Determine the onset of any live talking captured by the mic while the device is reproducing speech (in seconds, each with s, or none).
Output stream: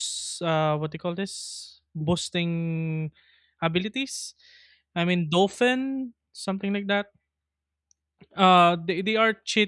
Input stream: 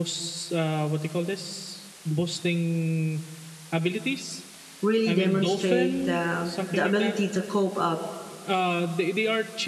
4.9 s